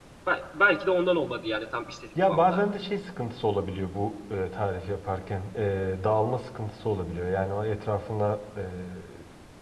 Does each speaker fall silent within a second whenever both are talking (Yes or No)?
Yes